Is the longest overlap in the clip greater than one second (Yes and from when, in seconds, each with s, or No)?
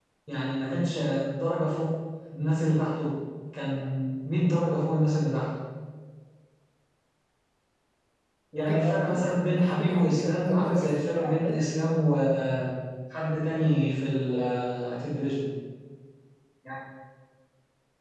Yes, from 8.6 s